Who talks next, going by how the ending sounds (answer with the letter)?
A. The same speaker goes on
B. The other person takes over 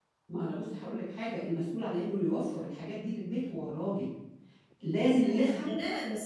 B